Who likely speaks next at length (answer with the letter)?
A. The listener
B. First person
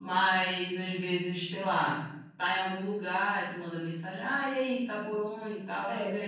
B